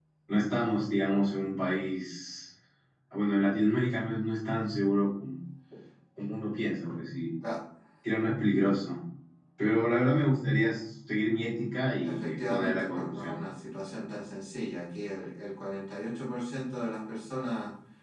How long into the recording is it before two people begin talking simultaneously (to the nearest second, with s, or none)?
12 s